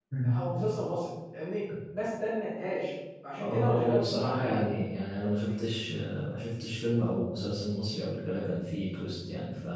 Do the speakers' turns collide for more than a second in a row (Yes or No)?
Yes